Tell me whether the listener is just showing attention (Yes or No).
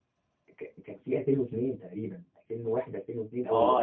No